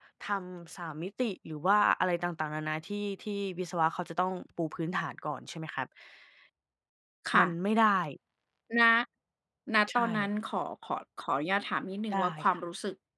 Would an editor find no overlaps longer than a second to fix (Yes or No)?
Yes